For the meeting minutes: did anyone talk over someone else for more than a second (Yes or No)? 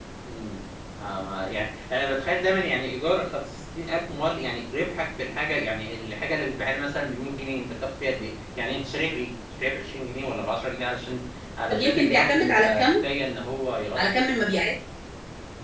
Yes